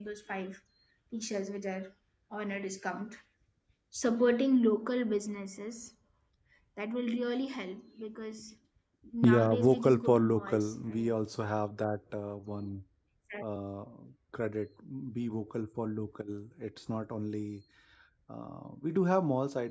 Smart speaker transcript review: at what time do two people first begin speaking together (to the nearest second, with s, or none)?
9 s